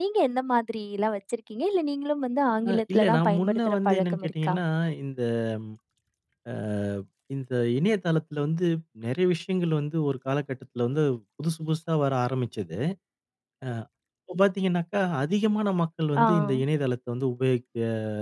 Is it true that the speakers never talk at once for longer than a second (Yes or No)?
No